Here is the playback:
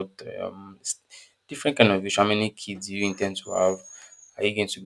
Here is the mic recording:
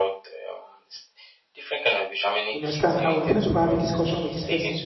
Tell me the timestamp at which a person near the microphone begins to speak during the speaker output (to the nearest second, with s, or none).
2 s